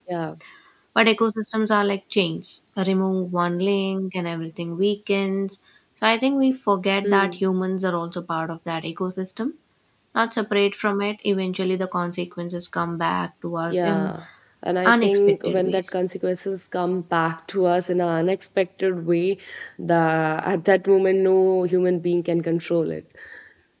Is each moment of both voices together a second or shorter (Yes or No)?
No